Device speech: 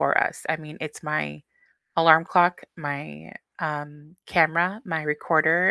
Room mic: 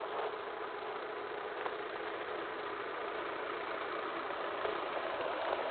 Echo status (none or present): none